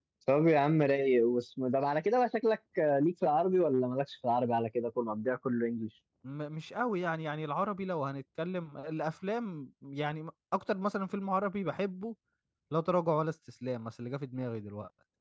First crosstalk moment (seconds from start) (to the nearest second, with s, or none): none